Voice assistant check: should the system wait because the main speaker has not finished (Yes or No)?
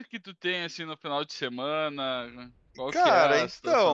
No